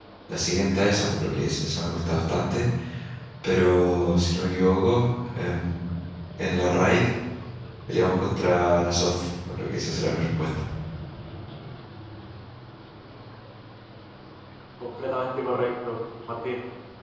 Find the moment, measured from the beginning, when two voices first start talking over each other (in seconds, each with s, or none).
none